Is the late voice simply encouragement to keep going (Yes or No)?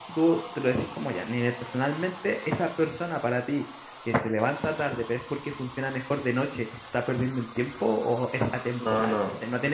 Yes